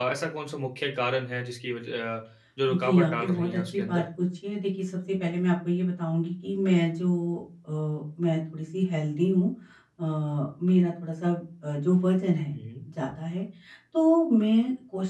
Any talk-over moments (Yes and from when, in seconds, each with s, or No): Yes, from 2.7 s